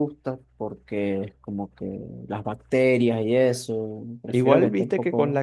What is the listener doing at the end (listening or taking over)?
taking over